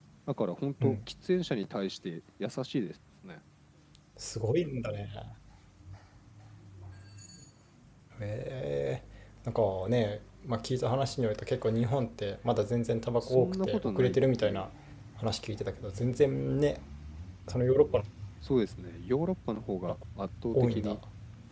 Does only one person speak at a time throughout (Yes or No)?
No